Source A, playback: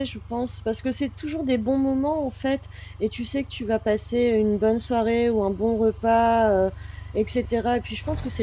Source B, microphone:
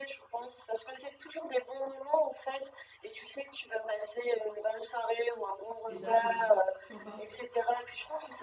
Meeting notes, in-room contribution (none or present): present